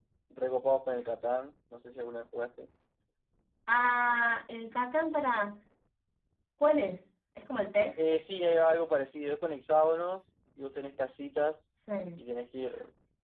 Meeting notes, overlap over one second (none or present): none